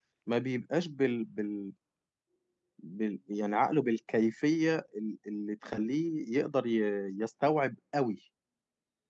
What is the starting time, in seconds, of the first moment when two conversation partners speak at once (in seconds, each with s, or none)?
none